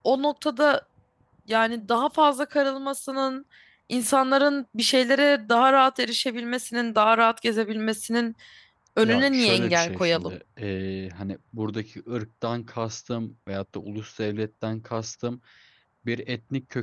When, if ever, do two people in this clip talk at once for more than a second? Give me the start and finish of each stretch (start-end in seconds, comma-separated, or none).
9.0-10.4